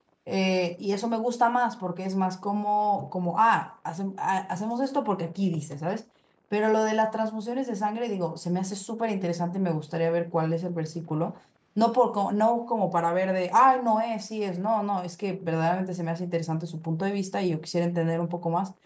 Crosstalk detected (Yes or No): No